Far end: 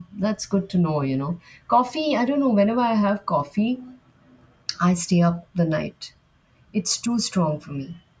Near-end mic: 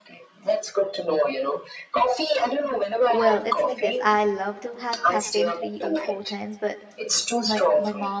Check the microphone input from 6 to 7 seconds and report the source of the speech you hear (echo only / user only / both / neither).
both